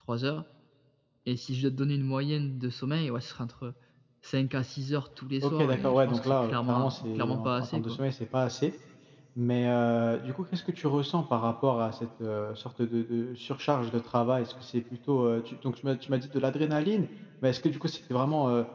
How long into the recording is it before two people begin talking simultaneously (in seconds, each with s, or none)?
5.4 s